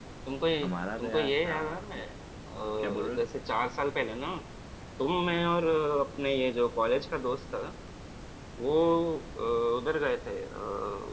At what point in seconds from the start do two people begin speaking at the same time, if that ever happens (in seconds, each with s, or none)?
0.6 s